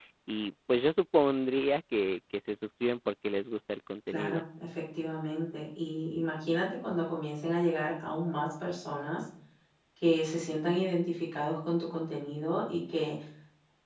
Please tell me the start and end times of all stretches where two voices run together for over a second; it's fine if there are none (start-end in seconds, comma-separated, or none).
none